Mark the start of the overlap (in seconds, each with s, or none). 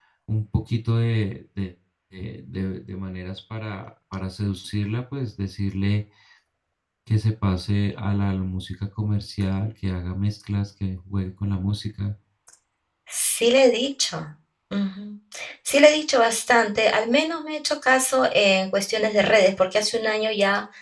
none